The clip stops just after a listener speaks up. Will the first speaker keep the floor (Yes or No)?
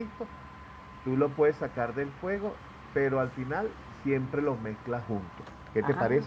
No